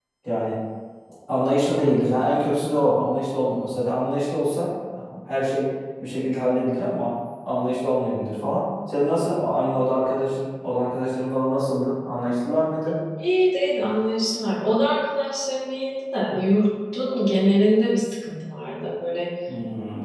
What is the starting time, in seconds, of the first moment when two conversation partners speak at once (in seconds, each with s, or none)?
none